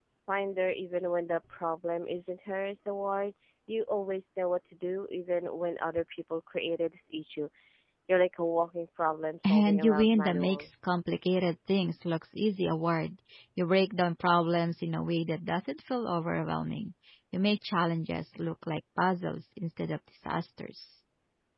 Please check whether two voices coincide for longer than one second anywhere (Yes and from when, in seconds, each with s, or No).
Yes, from 9.4 s